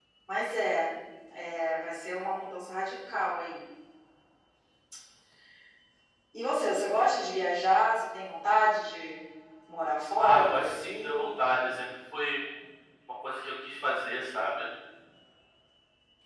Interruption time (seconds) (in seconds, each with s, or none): 10.2 s